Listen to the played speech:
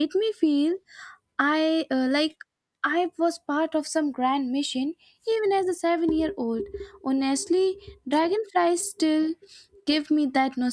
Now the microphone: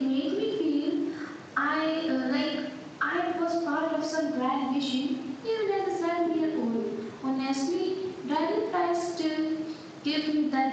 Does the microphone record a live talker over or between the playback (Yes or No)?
No